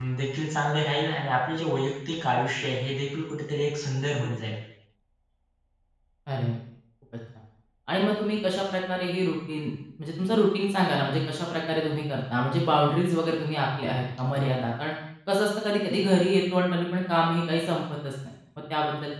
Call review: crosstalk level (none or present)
none